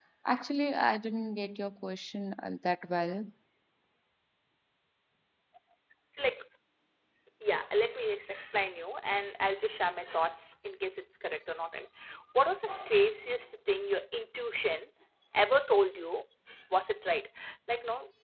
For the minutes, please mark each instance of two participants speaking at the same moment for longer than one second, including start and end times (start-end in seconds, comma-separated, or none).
none